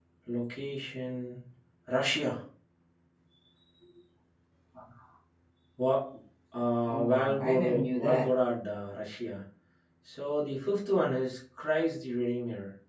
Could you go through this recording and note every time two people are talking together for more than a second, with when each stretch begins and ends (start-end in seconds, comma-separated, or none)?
6.9-8.3